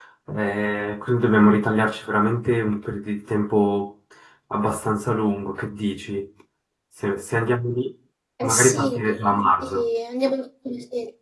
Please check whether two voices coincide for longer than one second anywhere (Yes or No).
Yes